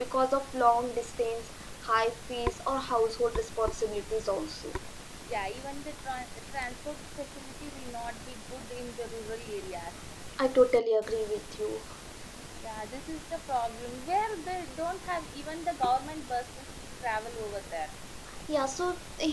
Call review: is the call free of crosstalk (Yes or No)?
Yes